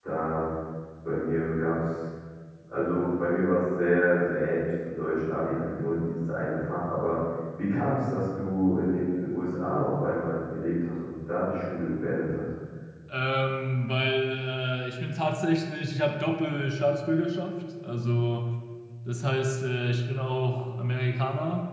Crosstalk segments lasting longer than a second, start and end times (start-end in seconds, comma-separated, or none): none